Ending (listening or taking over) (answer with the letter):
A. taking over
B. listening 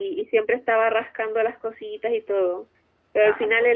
B